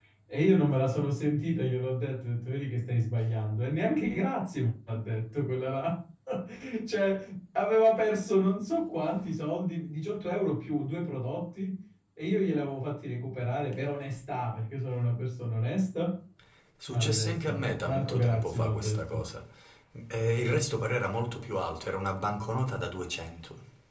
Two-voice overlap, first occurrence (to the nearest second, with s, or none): 17 s